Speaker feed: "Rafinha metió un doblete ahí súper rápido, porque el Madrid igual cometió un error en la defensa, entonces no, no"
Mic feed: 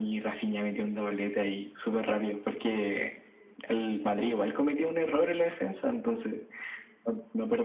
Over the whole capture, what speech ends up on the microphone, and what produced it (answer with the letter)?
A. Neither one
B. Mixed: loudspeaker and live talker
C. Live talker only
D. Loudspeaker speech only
D